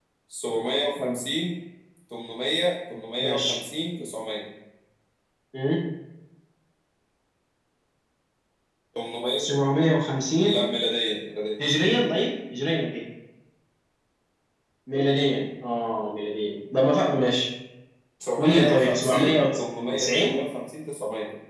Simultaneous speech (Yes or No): Yes